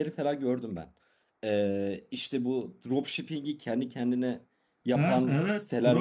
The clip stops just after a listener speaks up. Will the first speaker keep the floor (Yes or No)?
No